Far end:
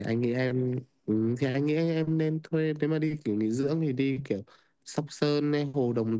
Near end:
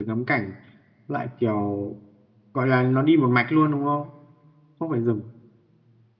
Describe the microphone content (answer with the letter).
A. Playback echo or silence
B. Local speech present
B